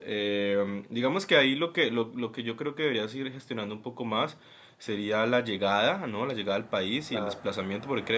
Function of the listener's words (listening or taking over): listening